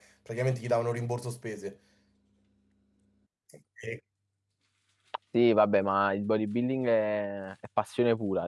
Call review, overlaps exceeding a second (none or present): none